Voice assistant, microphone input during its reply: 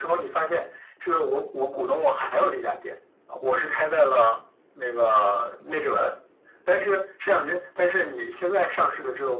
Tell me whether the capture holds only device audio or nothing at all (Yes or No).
Yes